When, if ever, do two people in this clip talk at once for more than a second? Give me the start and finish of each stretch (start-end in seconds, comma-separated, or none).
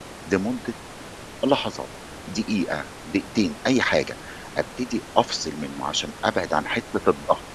none